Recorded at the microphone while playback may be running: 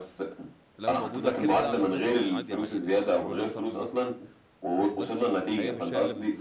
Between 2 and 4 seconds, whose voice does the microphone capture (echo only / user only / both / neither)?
both